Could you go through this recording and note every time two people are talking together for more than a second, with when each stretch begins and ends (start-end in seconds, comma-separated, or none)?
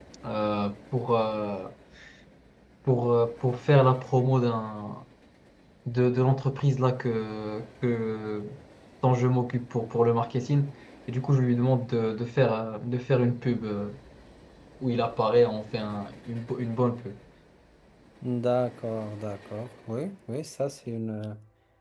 none